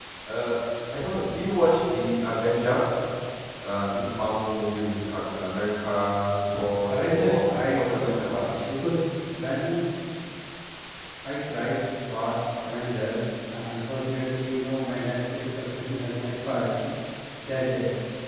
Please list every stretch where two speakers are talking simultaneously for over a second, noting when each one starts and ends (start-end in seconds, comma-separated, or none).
6.9-8.4